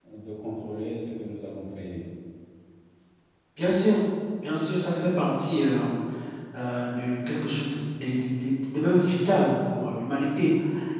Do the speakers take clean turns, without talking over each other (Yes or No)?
Yes